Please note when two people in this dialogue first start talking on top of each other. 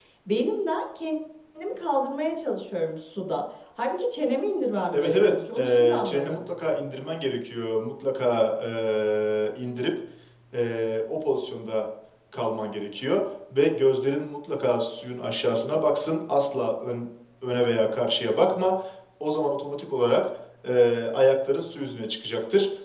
5 s

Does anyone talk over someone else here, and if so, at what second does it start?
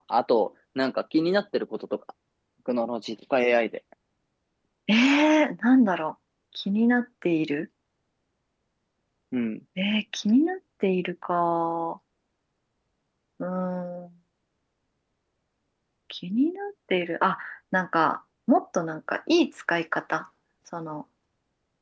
none

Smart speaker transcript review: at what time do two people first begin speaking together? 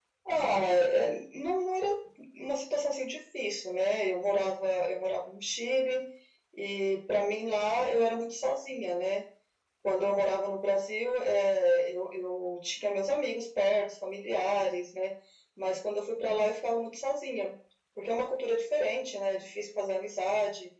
none

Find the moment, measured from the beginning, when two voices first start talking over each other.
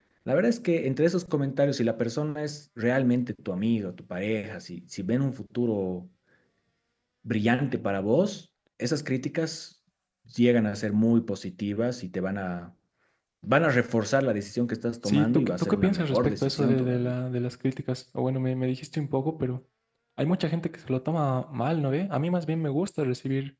15 s

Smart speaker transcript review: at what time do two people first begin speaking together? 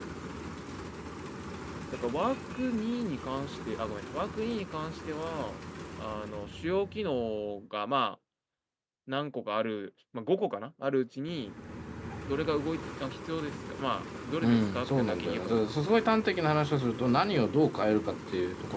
14 s

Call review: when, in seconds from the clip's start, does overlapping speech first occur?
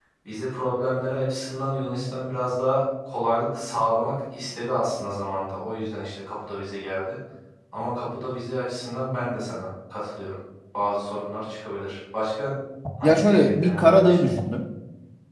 13 s

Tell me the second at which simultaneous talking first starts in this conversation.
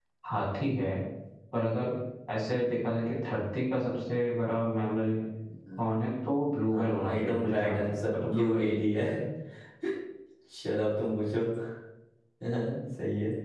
6 s

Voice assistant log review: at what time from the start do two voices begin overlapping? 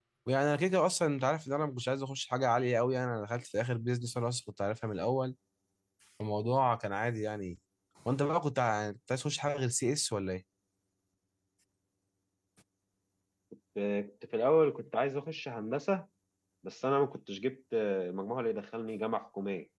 none

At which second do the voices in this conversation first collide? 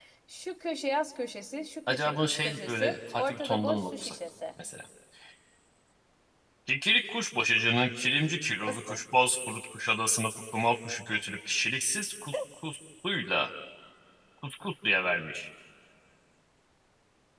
2 s

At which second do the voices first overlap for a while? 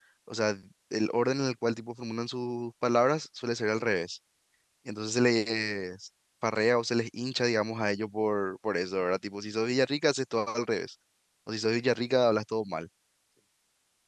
none

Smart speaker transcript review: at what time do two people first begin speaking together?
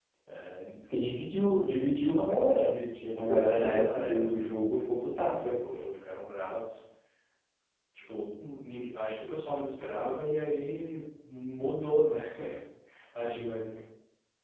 3 s

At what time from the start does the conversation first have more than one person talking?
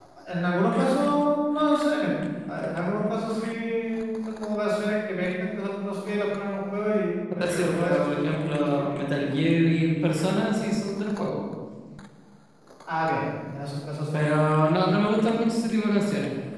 7 s

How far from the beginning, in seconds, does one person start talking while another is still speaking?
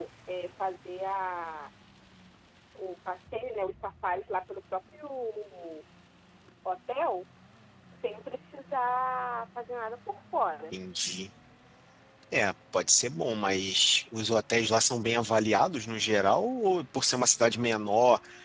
none

